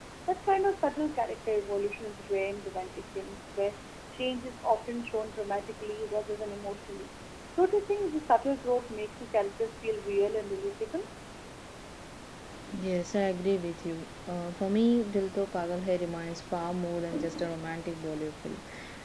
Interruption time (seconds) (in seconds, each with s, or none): none